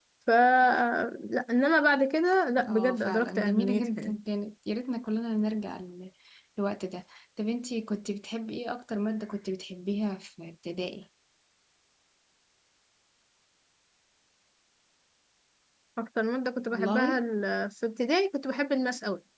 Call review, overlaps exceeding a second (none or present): present